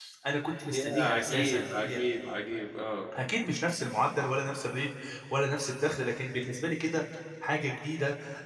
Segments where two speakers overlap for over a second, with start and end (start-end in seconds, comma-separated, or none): 0.6-2.0